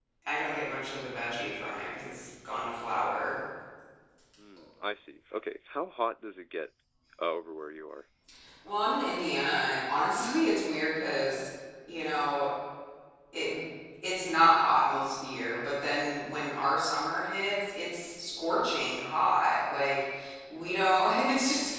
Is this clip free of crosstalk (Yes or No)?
Yes